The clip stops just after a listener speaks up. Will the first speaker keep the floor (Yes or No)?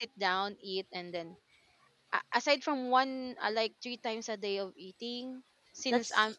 Yes